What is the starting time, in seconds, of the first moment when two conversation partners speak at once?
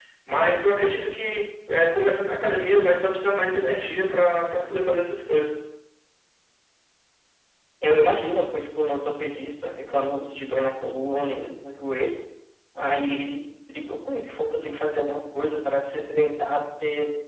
none

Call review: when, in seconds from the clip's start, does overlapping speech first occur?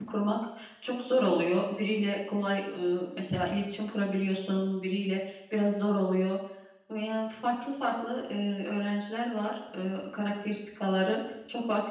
none

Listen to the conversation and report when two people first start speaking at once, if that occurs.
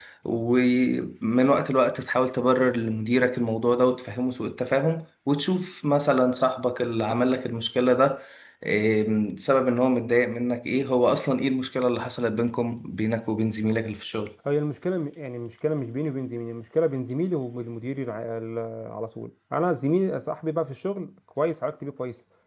none

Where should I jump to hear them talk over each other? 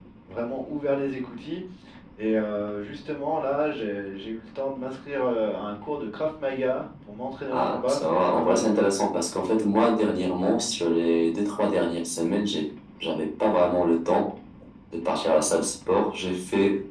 7.5 s

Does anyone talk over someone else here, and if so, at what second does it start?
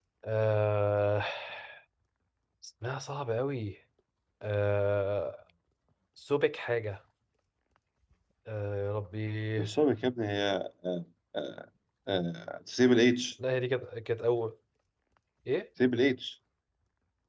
none

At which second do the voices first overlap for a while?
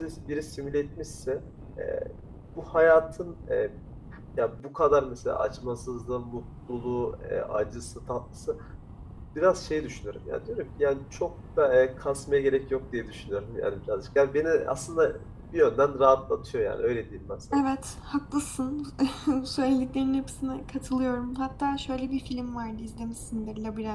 none

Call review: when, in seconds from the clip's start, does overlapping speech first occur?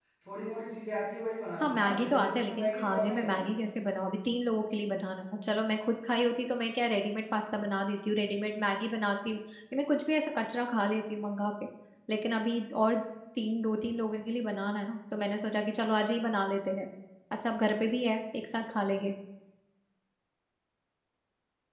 1.6 s

